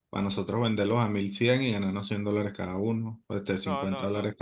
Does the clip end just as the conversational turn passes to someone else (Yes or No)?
Yes